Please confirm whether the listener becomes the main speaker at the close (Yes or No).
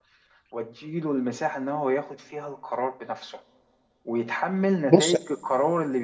No